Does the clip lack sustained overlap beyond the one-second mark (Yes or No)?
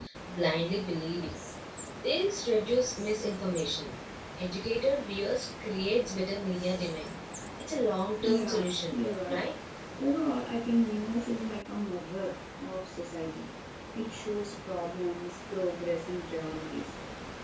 No